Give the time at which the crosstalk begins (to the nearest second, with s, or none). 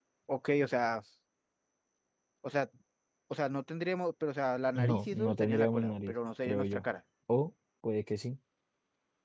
5 s